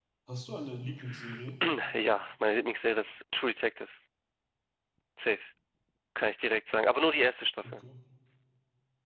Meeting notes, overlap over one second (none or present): none